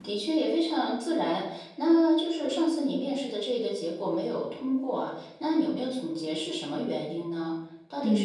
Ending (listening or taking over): taking over